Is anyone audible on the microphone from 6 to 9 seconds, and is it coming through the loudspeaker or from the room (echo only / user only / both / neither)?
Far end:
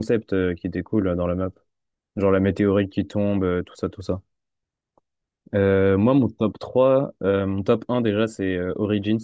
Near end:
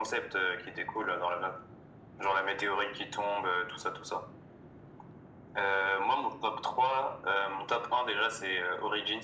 echo only